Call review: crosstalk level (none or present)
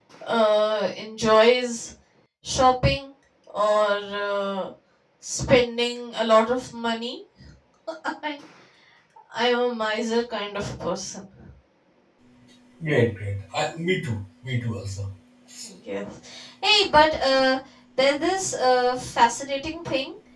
none